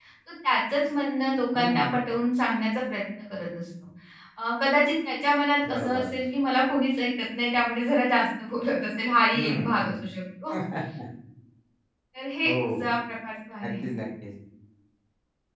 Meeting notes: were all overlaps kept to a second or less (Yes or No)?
Yes